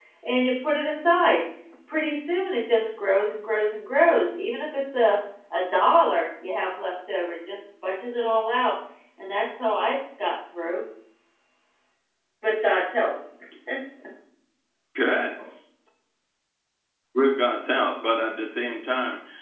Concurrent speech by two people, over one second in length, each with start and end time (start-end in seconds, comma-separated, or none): none